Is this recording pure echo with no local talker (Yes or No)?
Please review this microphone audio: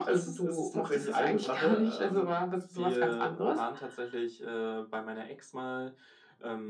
Yes